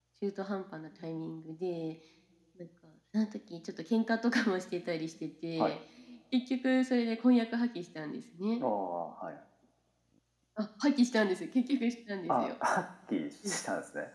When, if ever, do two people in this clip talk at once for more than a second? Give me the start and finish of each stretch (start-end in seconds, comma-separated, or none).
none